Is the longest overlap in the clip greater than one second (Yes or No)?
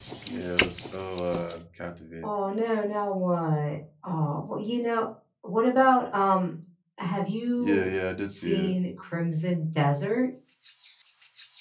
No